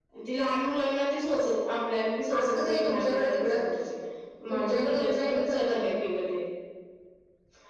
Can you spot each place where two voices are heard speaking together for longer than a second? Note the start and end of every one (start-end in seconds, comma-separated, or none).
2.3-3.6, 4.5-5.9